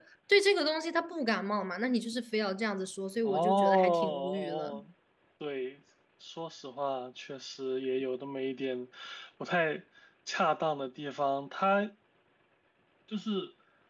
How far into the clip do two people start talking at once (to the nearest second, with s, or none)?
3 s